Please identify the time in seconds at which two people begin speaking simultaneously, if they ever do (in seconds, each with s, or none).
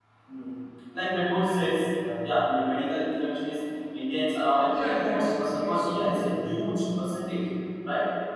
4.7 s